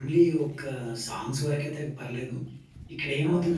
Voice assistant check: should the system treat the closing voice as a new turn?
No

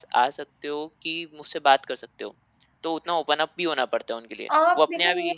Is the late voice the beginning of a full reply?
Yes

